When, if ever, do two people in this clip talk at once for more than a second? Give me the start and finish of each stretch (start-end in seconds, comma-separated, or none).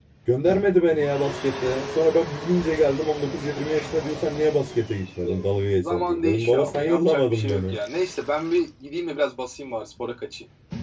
5.0-7.8